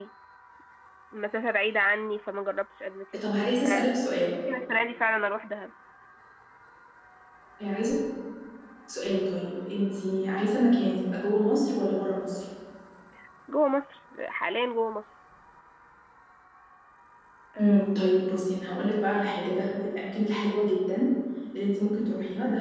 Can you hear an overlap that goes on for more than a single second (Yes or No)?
No